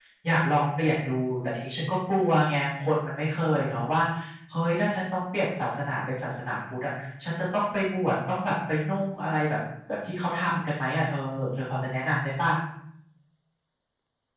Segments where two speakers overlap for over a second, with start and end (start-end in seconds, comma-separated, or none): none